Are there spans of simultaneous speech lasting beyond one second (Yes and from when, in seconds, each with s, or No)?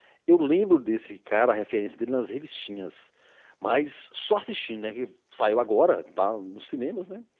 No